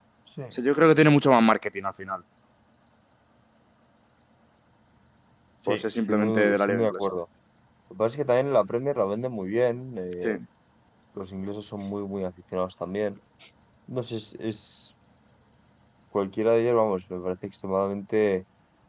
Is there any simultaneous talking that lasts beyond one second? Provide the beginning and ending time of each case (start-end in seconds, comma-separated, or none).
5.7-7.0